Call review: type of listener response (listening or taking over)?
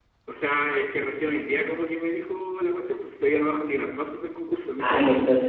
taking over